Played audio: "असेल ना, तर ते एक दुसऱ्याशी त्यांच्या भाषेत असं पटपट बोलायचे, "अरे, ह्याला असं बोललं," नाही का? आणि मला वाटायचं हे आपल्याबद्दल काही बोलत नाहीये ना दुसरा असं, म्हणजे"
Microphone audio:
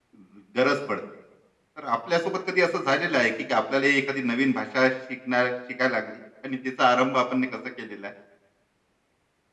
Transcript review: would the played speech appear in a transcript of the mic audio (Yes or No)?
No